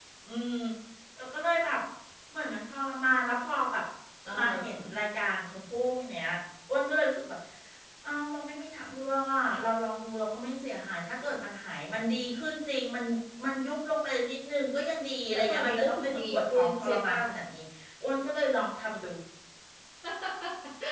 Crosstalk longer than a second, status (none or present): present